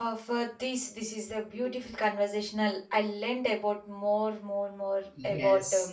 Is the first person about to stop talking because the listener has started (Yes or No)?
Yes